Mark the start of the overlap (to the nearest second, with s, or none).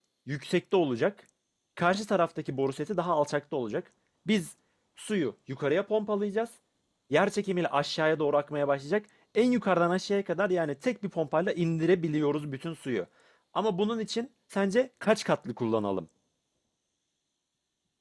none